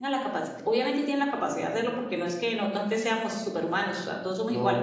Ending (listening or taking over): listening